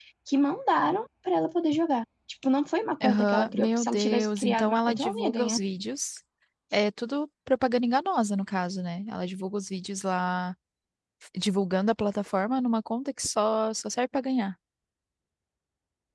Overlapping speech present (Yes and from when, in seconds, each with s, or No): Yes, from 3.0 s